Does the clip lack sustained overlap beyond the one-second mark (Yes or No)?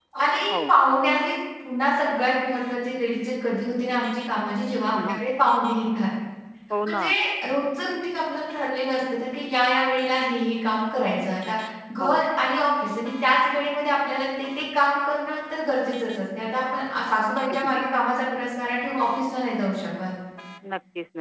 Yes